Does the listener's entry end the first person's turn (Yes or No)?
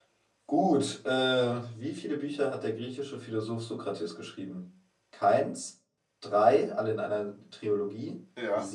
No